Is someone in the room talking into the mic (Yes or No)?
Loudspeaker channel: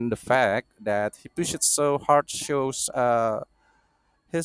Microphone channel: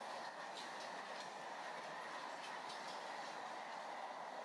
No